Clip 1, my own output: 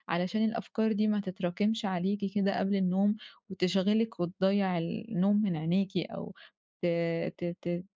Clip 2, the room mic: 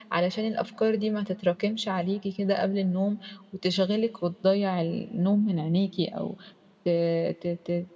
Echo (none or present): present